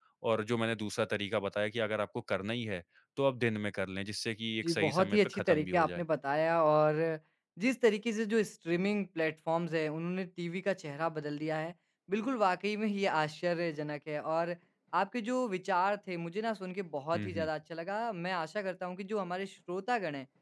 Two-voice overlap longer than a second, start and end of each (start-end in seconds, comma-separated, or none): 4.6-6.0